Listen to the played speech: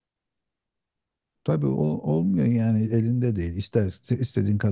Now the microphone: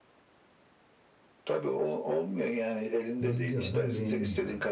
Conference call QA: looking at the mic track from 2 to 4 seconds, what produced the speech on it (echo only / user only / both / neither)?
both